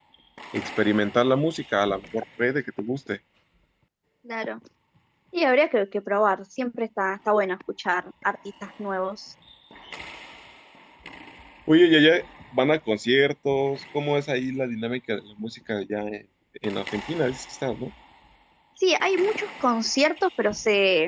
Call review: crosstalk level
none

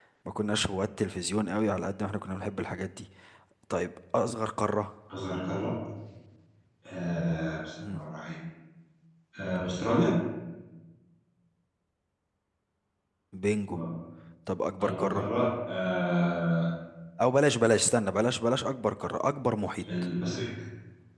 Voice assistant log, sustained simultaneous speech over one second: none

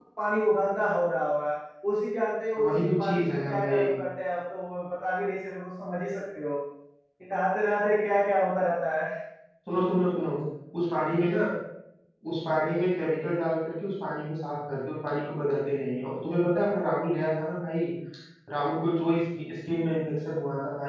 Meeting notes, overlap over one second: present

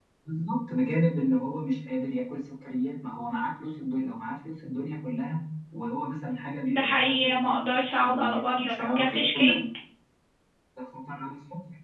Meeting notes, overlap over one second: present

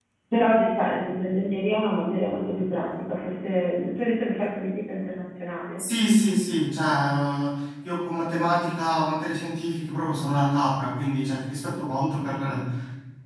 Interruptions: none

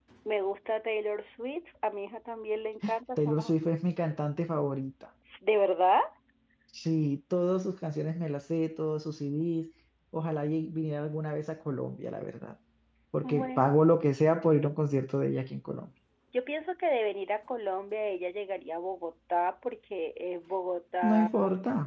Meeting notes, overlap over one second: none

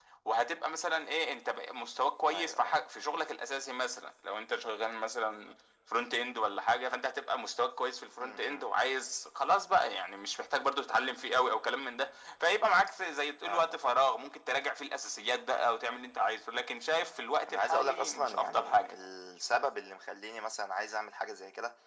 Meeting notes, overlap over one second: present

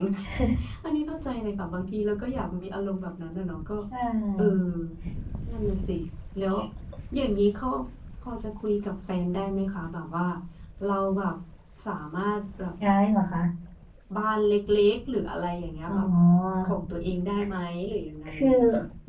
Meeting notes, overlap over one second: none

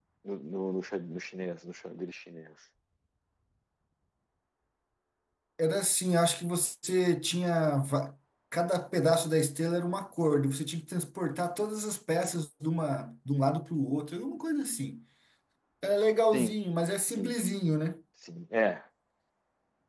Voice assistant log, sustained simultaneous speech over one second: none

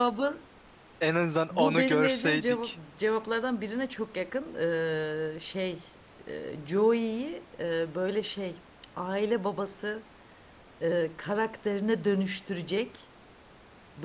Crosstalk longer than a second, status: present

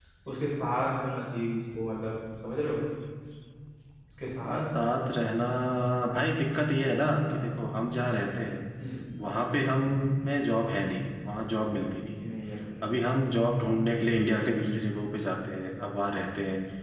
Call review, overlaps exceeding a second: none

